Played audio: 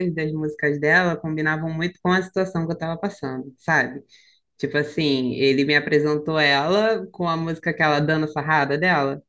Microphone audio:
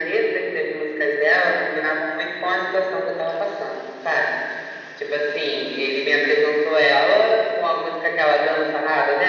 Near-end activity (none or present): none